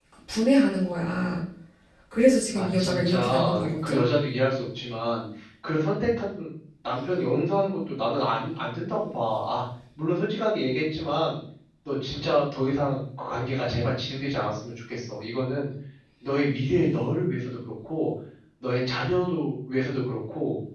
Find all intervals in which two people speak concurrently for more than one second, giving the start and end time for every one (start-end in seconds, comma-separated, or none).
2.5-4.0